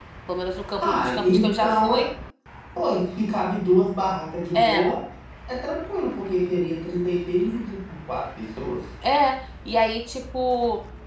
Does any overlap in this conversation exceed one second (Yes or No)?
Yes